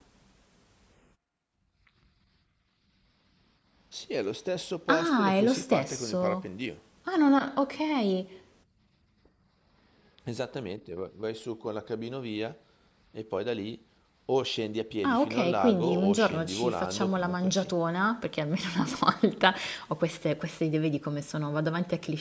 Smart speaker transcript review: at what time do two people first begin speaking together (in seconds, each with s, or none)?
4.9 s